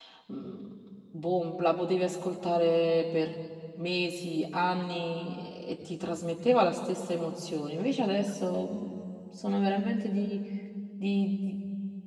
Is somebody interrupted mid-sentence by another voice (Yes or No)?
No